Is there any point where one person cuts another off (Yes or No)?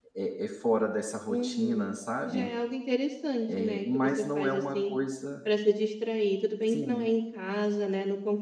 Yes